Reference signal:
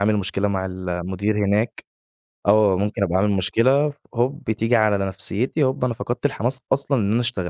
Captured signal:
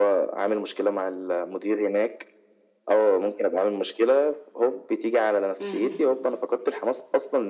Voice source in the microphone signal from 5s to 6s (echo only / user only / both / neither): both